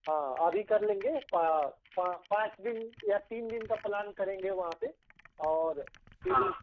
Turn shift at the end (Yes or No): No